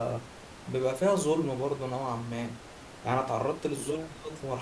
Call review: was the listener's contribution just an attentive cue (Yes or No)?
Yes